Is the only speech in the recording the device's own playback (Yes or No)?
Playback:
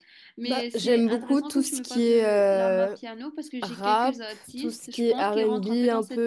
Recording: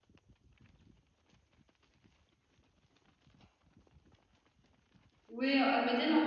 No